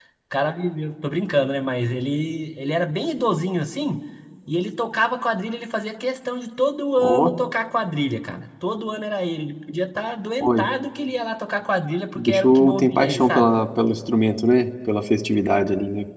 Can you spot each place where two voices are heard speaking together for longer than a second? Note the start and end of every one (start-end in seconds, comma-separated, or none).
12.2-13.5